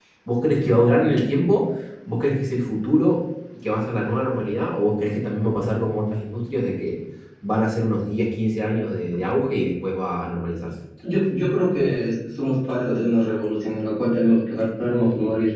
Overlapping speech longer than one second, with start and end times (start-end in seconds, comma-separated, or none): none